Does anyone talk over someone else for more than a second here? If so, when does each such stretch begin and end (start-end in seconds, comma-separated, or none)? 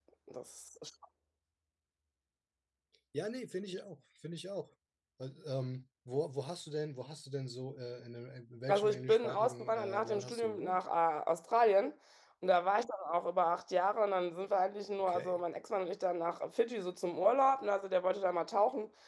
8.7-10.8